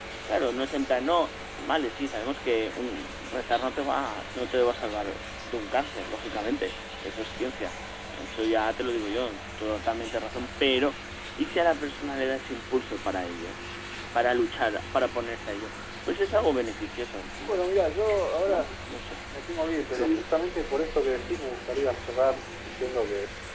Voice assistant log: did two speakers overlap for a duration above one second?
No

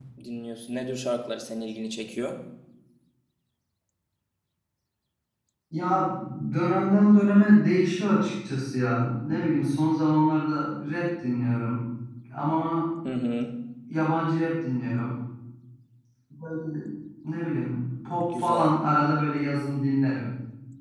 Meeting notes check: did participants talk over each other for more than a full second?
No

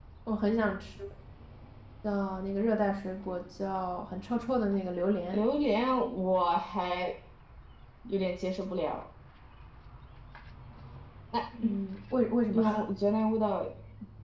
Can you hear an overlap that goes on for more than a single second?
No

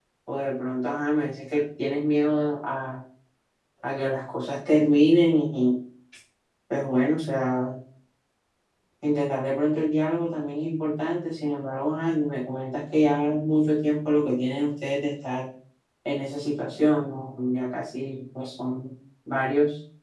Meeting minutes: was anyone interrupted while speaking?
No

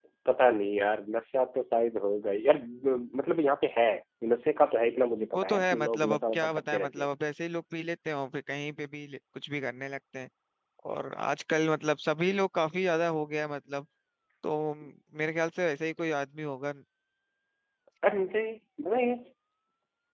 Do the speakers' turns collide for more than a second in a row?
Yes, from 5.3 s

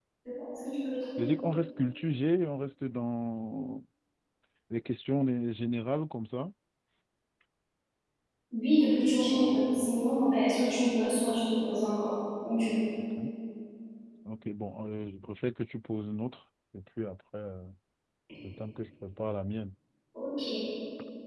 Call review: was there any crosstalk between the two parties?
No

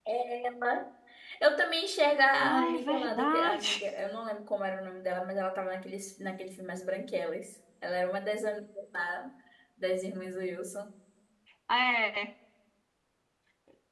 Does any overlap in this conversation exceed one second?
Yes, from 2.4 s

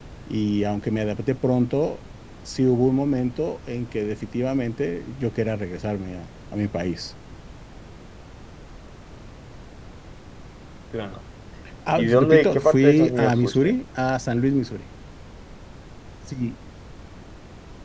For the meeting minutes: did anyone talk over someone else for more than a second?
Yes, from 12.0 s

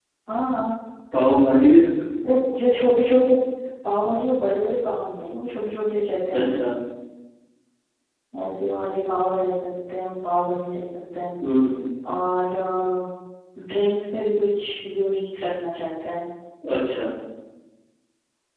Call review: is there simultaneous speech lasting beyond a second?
No

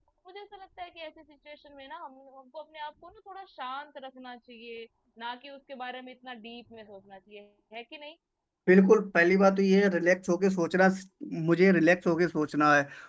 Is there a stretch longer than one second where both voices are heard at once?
No

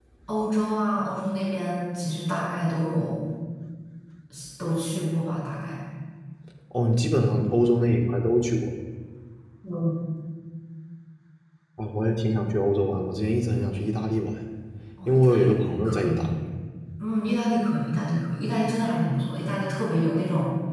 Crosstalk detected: Yes, from 15.1 s

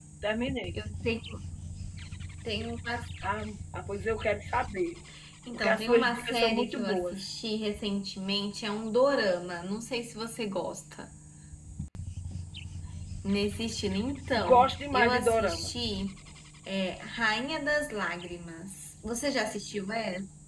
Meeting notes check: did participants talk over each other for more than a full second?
Yes, from 5.5 s

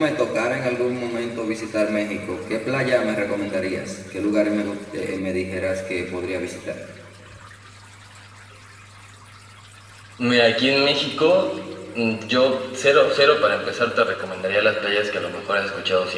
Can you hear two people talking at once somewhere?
No

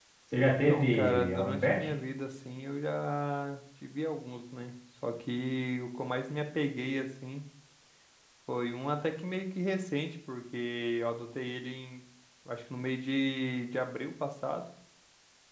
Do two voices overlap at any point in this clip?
Yes, from 0.7 s

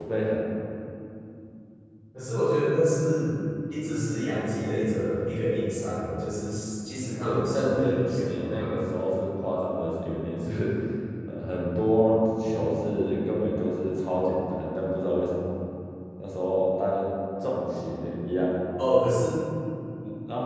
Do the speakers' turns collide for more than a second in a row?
Yes, from 7.2 s

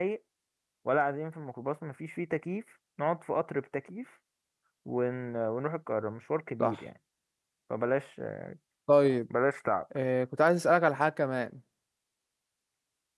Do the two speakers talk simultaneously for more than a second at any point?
No

